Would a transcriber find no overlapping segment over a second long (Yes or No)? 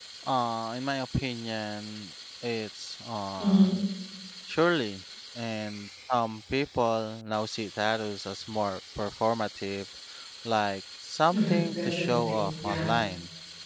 No